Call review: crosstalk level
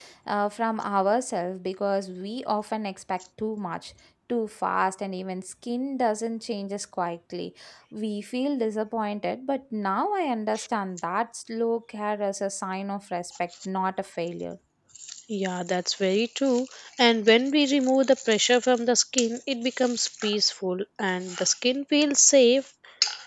none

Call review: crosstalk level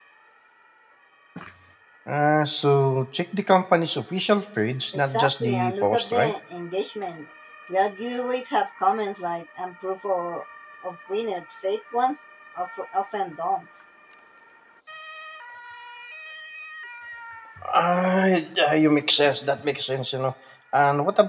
present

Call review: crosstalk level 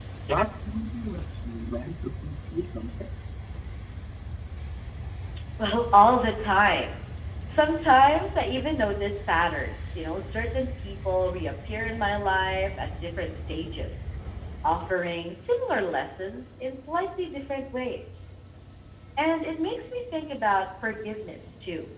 none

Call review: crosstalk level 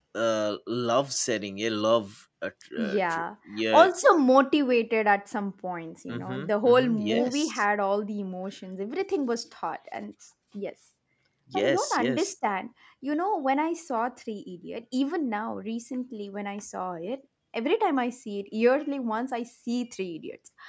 present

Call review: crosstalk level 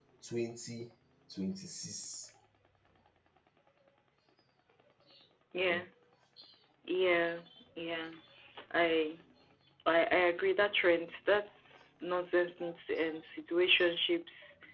none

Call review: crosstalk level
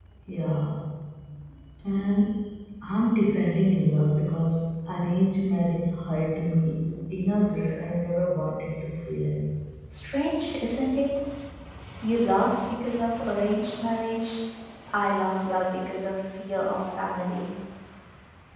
none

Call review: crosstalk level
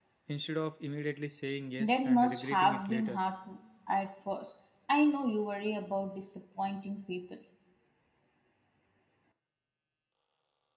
present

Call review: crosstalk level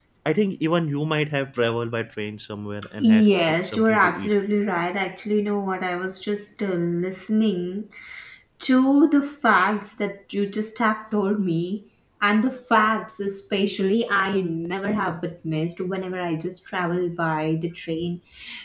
present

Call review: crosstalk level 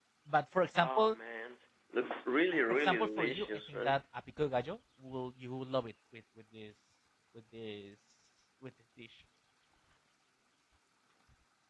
present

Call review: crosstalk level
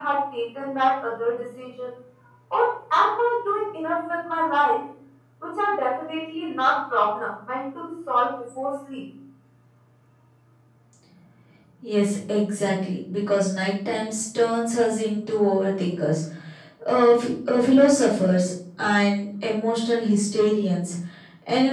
none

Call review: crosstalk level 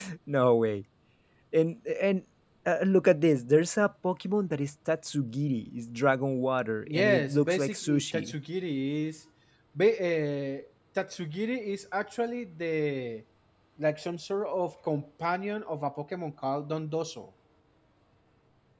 present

